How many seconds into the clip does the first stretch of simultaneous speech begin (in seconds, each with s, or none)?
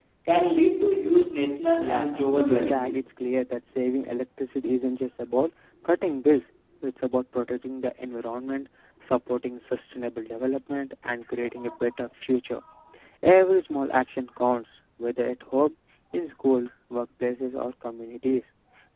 1.8 s